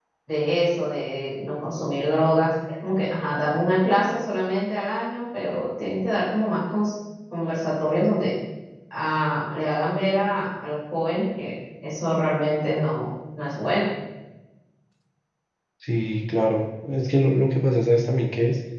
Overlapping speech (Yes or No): No